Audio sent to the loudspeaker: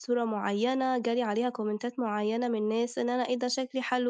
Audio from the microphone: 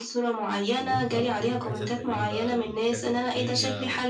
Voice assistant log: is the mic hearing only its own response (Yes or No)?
No